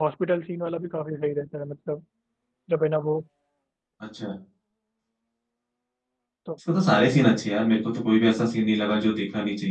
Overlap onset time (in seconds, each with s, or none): none